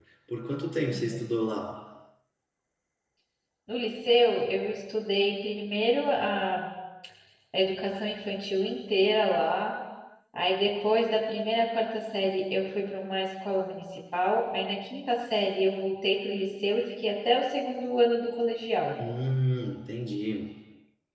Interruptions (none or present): none